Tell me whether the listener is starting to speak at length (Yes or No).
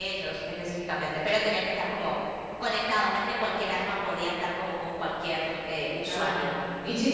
Yes